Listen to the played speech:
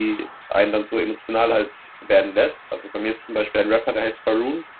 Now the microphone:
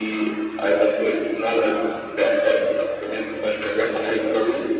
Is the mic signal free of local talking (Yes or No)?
Yes